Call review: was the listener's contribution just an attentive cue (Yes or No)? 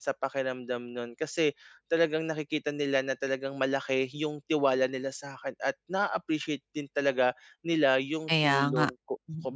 Yes